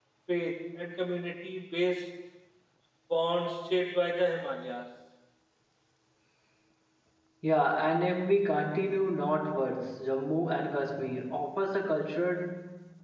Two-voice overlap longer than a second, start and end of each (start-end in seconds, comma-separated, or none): none